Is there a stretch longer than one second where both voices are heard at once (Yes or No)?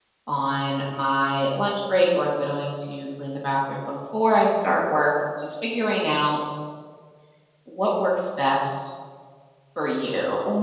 No